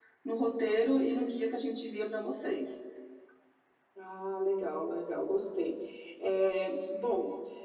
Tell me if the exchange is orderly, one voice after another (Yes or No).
Yes